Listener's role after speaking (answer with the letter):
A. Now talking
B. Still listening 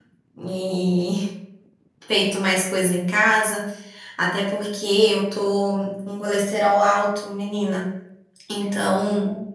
B